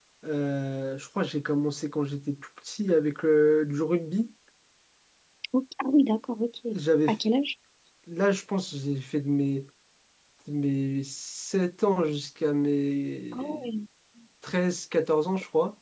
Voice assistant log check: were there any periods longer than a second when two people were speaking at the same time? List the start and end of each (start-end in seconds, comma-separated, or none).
none